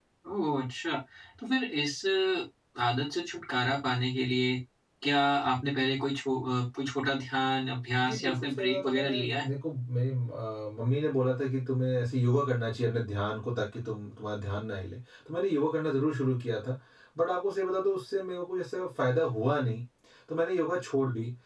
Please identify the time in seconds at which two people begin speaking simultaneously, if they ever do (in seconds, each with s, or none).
8.0 s